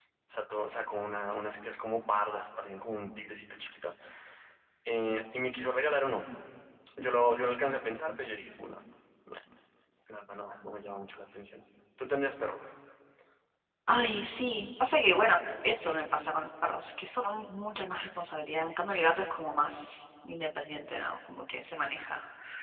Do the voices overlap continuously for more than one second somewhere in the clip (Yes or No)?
No